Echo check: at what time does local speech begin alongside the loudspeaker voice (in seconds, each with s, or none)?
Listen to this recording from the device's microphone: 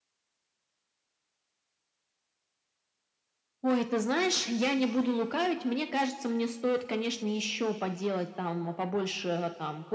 none